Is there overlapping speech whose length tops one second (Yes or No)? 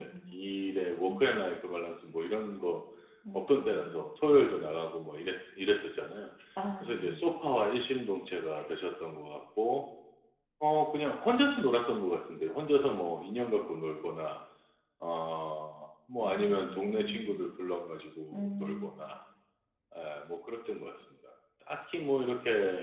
Yes